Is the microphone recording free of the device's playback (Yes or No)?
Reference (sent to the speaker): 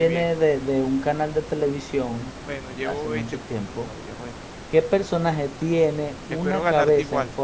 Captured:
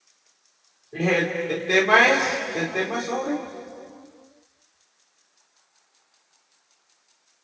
Yes